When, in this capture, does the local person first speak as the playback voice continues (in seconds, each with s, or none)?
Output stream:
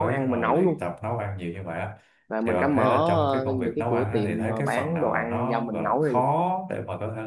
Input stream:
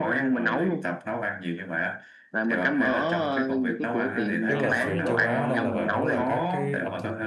4.5 s